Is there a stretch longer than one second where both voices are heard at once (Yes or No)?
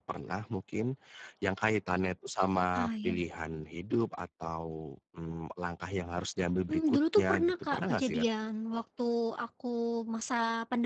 Yes